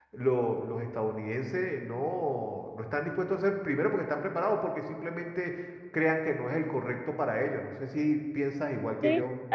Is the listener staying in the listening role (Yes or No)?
No